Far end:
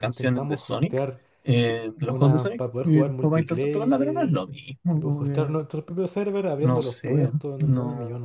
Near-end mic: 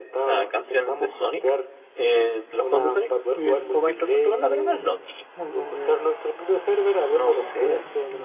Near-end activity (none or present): none